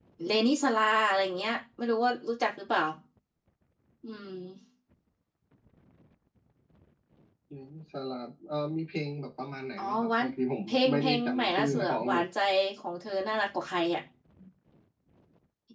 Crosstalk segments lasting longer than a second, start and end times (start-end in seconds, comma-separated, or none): 10.7-12.2